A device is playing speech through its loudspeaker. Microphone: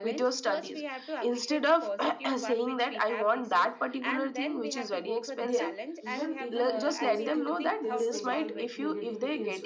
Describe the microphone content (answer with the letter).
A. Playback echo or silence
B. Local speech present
B